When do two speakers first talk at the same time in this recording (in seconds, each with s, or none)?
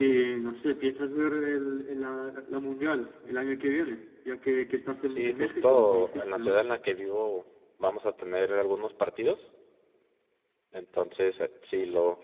5.1 s